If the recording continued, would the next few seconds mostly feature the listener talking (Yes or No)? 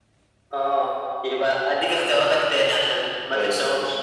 No